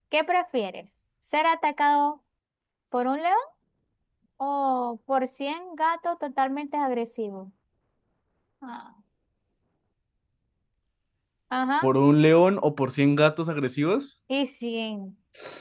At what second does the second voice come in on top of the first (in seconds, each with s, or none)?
none